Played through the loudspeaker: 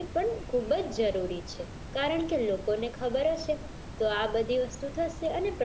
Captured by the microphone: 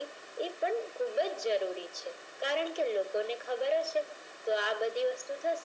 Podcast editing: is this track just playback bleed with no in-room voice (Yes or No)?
Yes